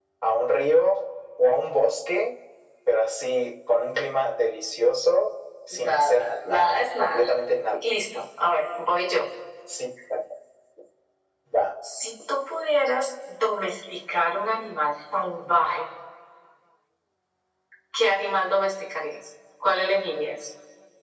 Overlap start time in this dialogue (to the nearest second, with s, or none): 6 s